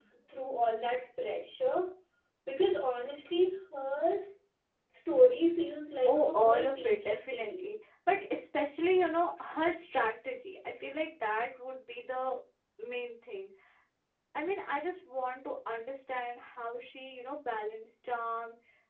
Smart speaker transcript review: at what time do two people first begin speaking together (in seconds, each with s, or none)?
6.1 s